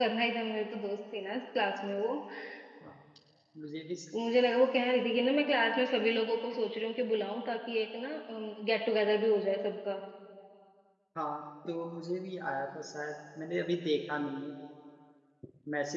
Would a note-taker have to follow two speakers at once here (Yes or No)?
No